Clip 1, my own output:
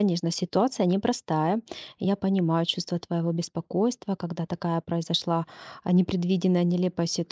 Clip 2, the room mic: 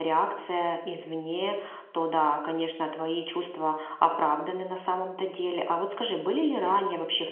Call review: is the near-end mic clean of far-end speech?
Yes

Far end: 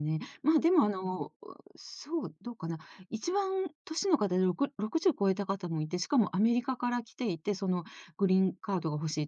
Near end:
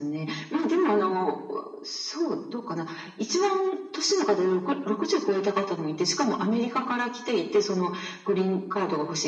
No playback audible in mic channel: No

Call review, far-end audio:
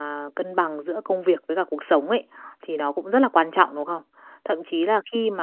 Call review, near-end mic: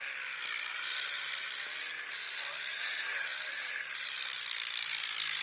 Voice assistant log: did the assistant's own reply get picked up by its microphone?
No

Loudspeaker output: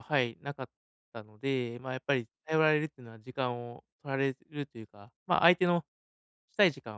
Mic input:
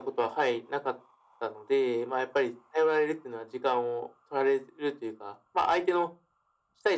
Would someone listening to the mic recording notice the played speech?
Yes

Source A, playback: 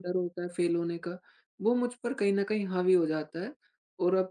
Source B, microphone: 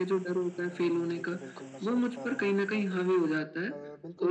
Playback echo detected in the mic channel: Yes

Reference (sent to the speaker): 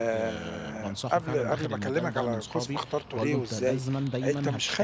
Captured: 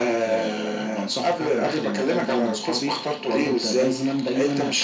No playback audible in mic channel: No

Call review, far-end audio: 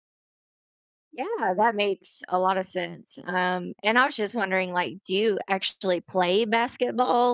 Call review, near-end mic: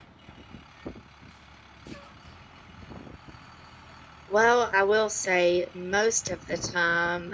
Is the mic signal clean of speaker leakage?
Yes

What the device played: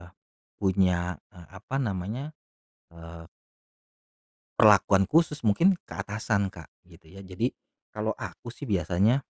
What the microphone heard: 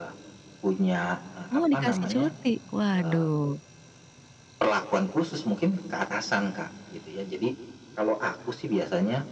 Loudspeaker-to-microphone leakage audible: Yes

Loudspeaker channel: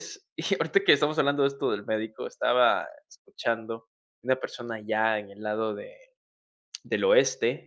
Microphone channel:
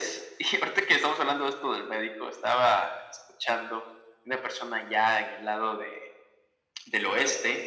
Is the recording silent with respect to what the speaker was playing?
No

